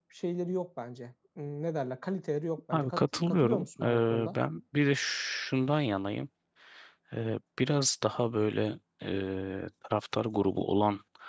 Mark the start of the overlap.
2.7 s

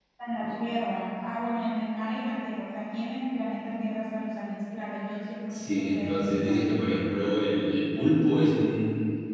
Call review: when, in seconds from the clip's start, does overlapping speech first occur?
5.5 s

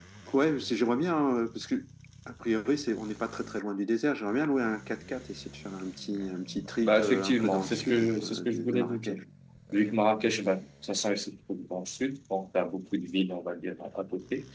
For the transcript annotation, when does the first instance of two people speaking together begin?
6.8 s

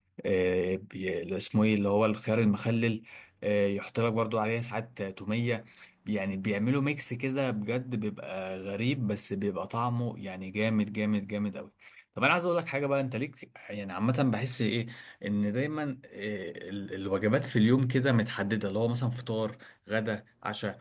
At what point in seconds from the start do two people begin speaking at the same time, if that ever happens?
none

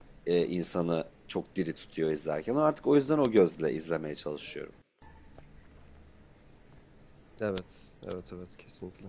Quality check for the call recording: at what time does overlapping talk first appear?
none

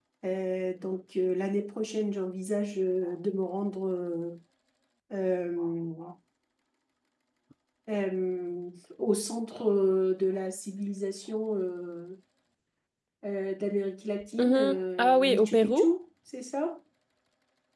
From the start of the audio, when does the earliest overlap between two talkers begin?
14.4 s

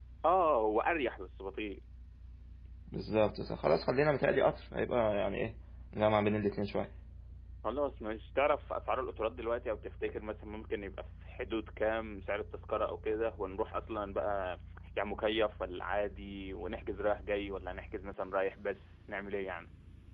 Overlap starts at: none

